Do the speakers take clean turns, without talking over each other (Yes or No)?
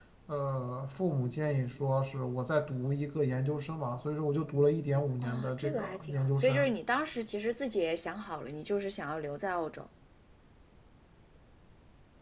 No